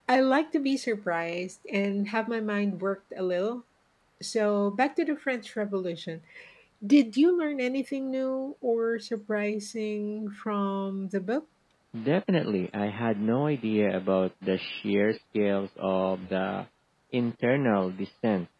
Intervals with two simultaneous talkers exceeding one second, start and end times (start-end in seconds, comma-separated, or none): none